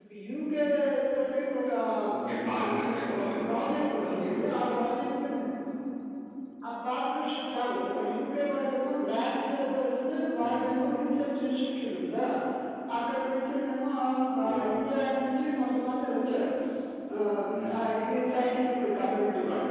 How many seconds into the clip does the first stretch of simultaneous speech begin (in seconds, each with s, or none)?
2.6 s